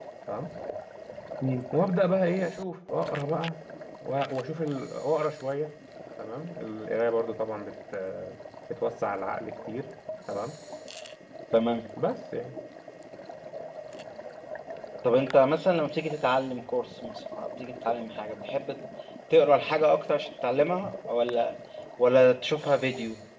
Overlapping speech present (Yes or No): No